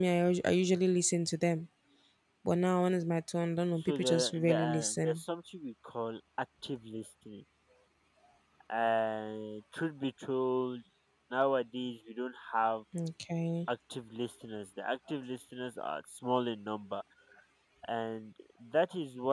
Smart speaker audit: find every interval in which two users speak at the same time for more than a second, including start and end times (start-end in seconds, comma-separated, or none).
3.8-5.2